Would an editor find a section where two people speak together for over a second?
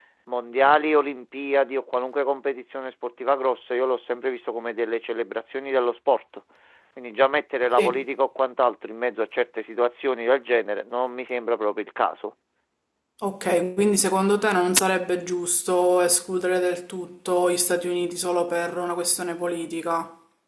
No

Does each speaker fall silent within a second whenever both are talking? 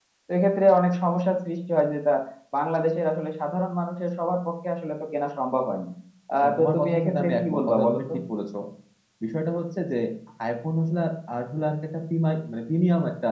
No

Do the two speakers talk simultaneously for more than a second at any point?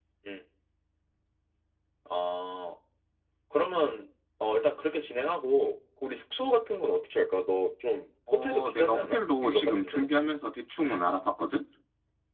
Yes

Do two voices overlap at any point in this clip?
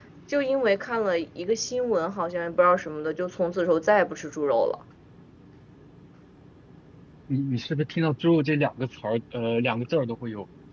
No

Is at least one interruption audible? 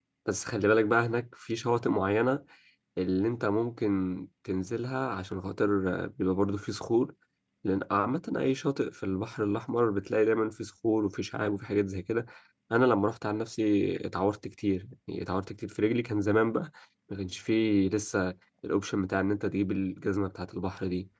No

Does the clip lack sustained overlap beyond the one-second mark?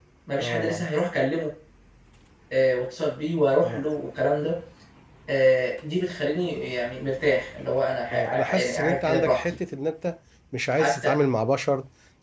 No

